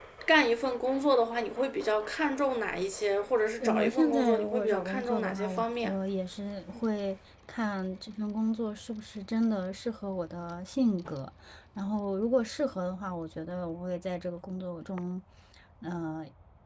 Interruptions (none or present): present